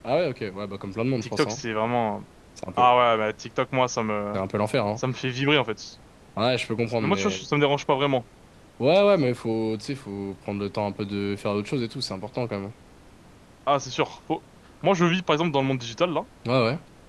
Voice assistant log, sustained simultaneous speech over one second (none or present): none